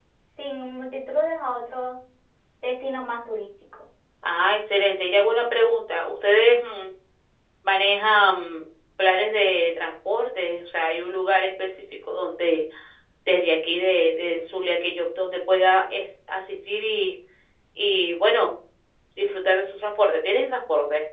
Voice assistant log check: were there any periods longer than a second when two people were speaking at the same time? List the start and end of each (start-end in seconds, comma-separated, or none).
none